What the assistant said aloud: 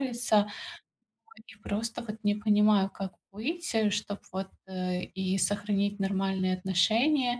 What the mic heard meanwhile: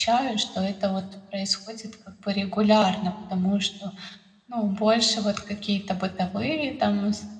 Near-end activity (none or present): present